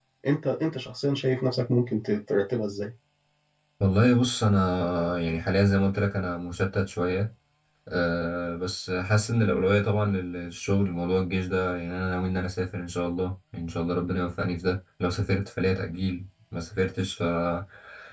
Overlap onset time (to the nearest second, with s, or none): none